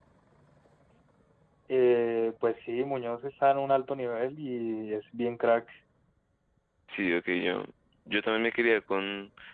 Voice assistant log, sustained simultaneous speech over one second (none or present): none